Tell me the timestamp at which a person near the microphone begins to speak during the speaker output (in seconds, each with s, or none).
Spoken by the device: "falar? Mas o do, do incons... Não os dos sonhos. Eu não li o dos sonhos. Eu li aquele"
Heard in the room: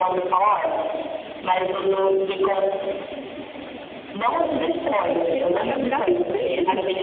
4.5 s